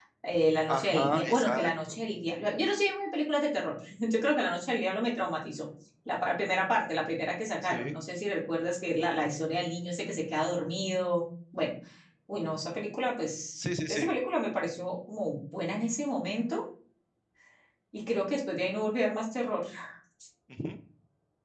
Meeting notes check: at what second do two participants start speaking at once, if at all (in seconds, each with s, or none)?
0.7 s